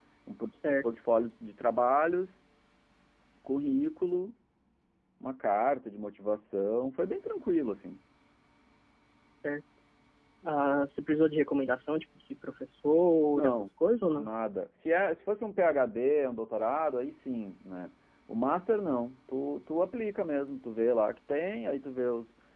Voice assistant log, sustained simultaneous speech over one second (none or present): none